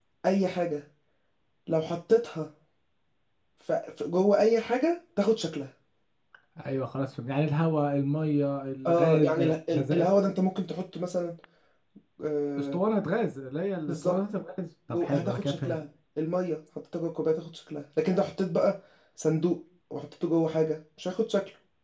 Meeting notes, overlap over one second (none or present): present